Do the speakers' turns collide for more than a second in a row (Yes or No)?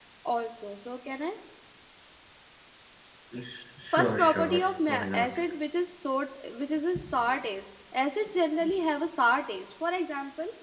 Yes